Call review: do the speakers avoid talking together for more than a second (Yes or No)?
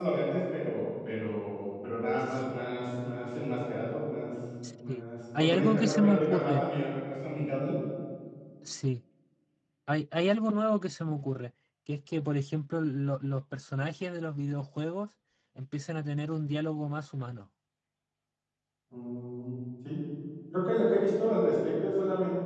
No